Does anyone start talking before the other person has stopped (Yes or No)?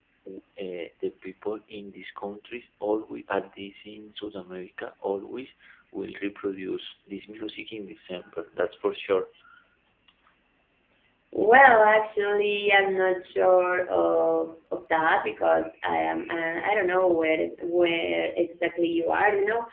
No